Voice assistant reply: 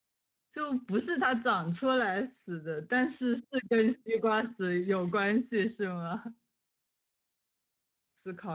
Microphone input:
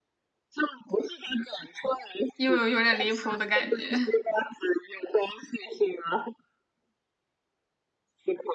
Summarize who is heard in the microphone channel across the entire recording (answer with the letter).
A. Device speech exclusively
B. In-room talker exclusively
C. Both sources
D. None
C